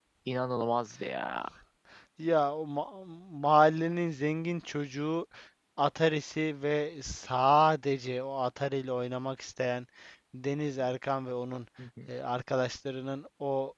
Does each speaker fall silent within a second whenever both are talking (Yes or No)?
Yes